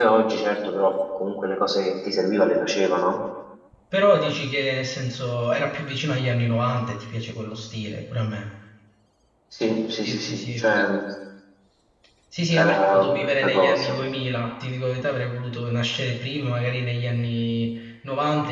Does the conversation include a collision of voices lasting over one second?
Yes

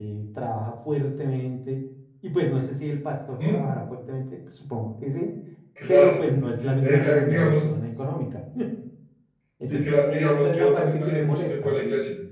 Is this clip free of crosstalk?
No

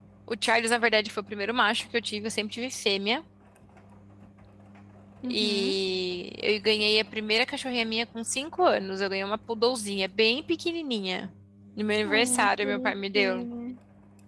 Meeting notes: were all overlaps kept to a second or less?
No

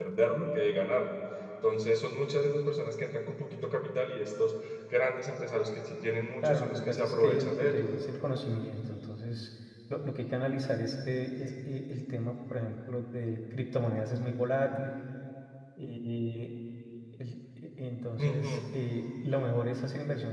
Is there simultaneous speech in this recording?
Yes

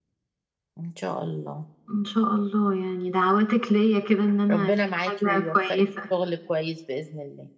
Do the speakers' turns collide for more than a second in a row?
Yes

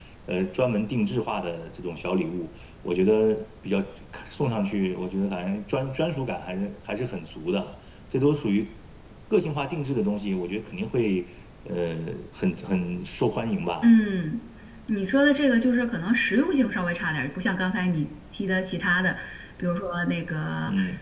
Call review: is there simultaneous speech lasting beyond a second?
No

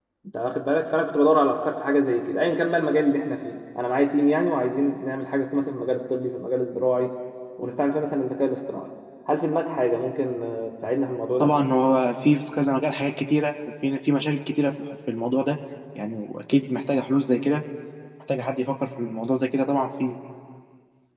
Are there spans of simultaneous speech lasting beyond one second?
No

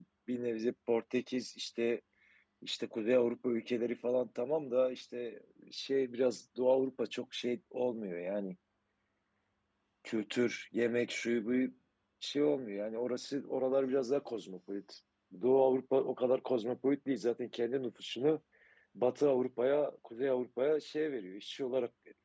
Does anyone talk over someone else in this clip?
No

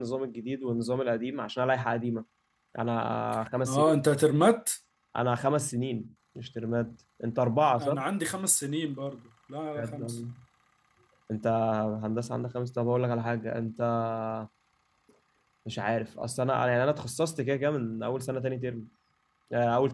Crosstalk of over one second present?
No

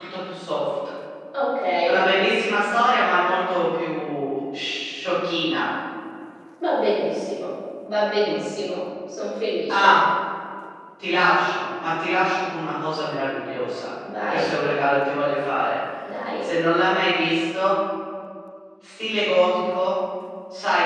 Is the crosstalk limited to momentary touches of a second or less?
Yes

